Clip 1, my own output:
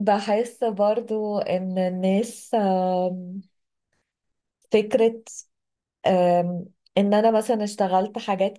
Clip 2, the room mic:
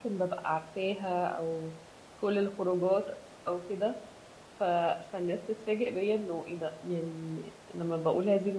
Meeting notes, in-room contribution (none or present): present